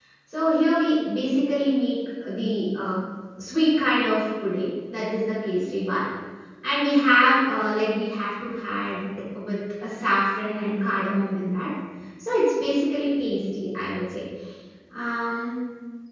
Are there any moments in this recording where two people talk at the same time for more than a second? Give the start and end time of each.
none

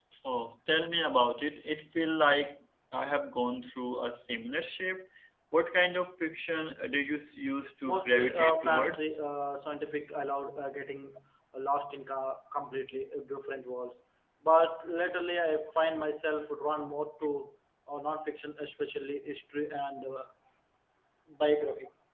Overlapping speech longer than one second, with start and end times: 7.8-9.2

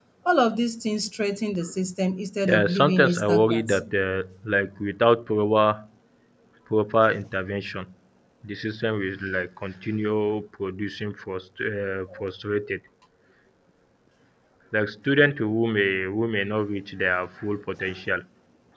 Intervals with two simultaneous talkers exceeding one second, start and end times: 2.4-3.8

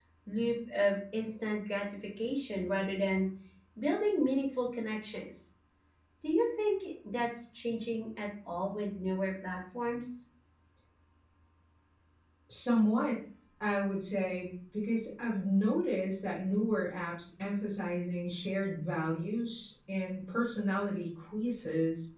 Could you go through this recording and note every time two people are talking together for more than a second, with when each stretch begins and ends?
none

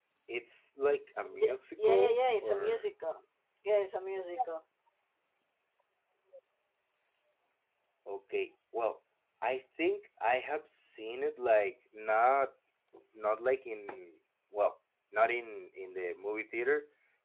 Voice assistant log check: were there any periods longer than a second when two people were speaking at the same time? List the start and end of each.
1.4-2.8

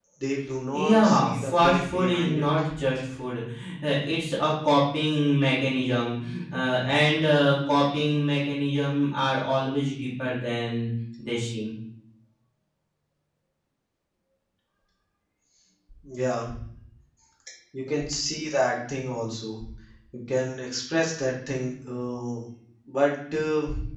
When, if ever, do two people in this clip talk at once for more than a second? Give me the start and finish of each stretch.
0.7-2.5

